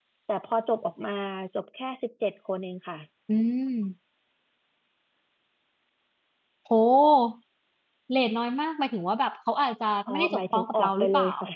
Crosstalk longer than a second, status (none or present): present